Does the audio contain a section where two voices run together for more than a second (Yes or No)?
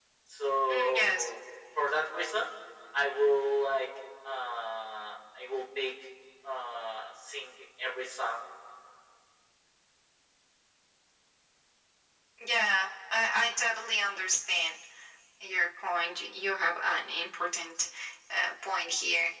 No